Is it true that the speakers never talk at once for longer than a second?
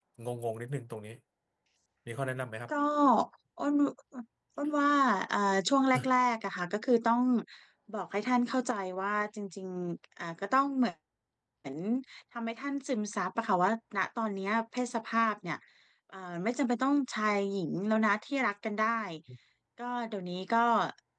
Yes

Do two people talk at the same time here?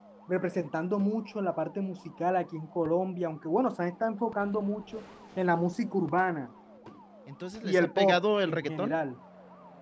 Yes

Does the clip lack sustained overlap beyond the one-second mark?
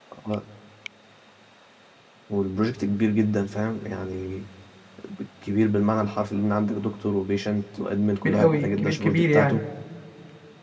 No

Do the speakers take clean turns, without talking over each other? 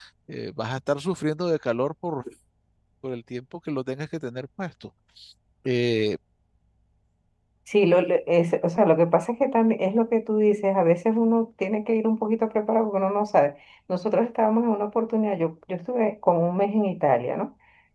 Yes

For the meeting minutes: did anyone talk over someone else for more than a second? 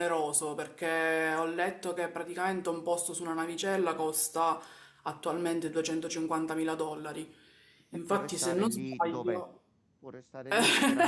Yes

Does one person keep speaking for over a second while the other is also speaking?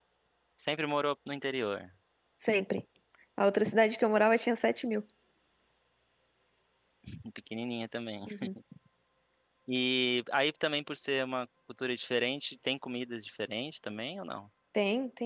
No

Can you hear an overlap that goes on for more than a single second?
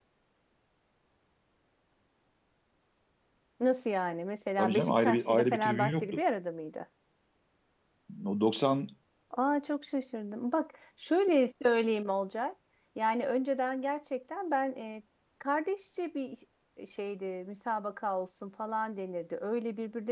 Yes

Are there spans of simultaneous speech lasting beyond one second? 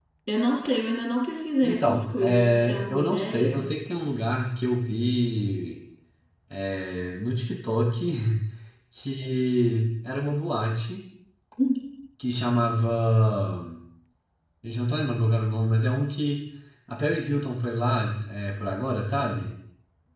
Yes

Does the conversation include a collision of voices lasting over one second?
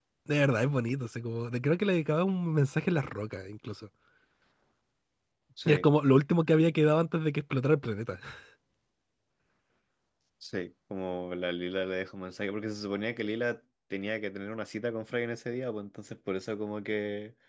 No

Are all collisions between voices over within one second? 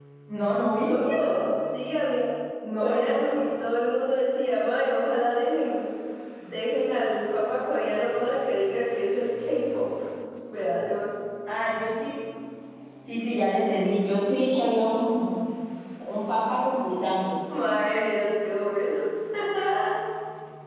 Yes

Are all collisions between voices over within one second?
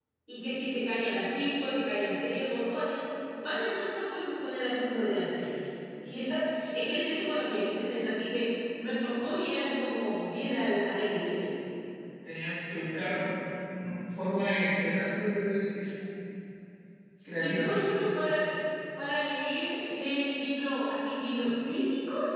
Yes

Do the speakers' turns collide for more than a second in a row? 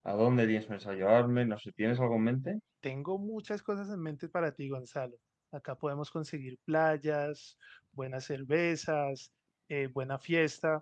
No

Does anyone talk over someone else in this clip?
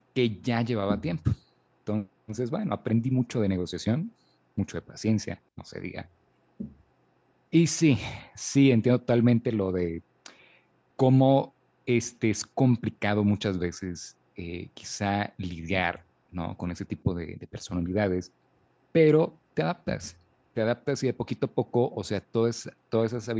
No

